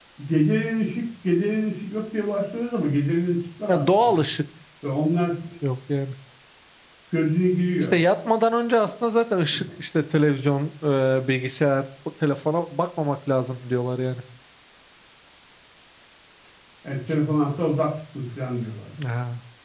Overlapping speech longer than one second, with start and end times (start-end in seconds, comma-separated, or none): none